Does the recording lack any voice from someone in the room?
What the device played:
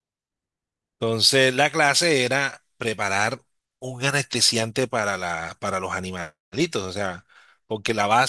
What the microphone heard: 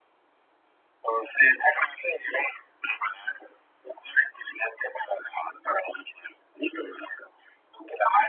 Yes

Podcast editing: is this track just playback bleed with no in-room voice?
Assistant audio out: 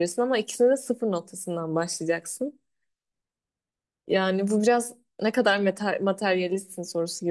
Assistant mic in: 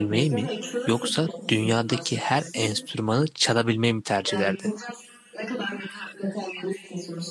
No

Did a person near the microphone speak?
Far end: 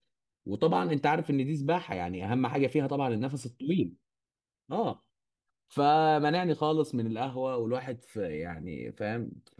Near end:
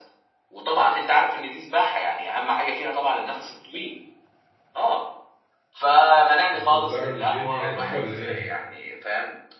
Yes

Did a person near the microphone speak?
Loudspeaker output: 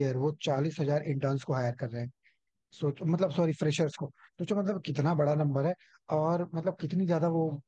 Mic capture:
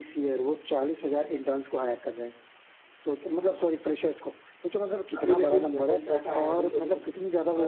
Yes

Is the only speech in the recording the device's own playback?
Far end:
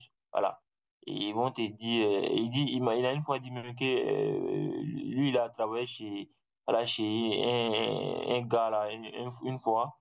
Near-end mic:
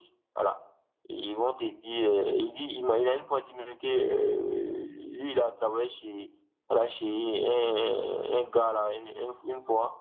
Yes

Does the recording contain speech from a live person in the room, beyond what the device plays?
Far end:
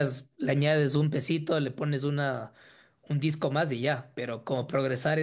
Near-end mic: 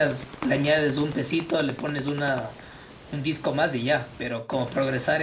No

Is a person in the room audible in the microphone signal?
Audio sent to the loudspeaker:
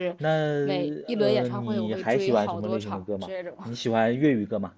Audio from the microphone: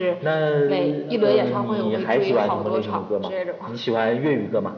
No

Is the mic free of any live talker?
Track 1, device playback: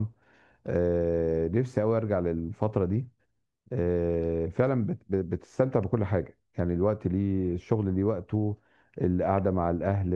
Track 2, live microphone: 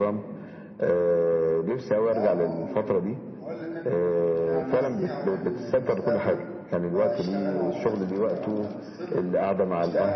No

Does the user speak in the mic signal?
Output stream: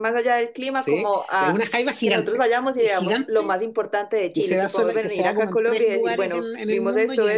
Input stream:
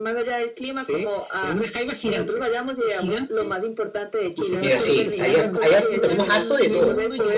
Yes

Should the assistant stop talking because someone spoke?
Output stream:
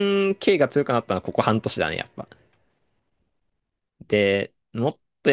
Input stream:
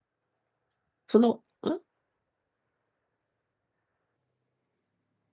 Yes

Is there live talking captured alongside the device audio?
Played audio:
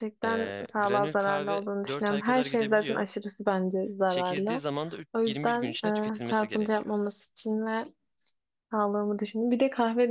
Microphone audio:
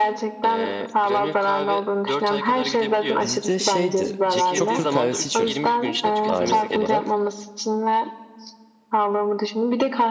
Yes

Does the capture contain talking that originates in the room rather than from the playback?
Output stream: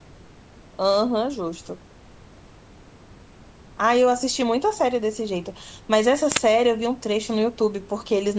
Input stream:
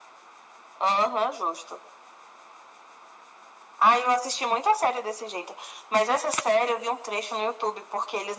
No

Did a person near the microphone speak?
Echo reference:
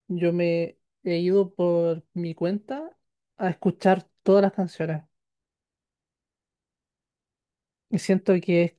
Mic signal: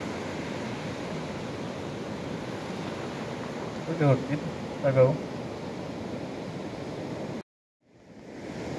Yes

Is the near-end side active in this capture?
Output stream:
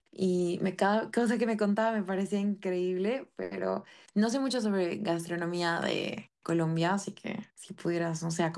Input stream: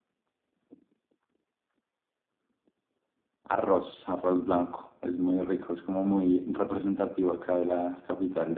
Yes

